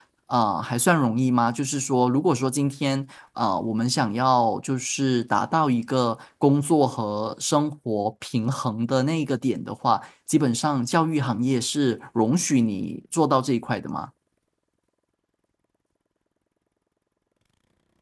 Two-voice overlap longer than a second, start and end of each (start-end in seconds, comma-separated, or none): none